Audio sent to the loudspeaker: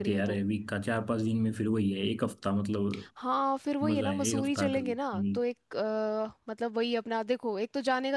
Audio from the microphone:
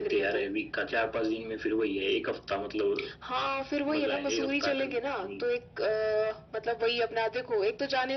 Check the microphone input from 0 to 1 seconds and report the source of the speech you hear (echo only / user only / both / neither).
echo only